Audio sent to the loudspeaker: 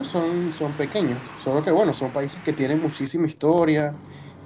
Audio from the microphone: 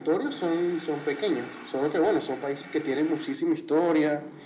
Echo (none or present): present